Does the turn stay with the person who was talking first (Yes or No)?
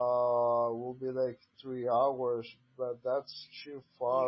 No